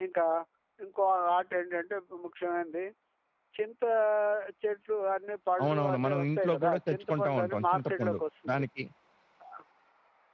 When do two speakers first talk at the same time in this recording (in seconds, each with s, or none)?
5.6 s